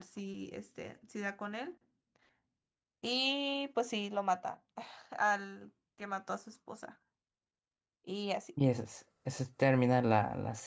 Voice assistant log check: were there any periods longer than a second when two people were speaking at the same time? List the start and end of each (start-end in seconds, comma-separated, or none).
none